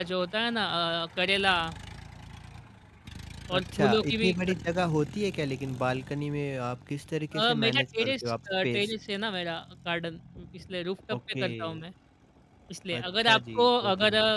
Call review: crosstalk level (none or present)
present